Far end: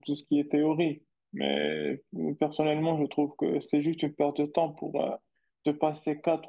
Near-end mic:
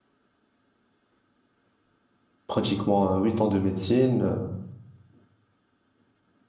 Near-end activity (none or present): present